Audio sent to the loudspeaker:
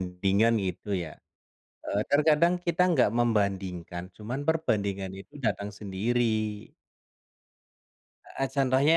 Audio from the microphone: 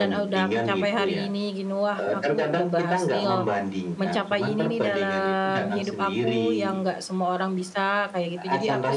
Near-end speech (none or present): present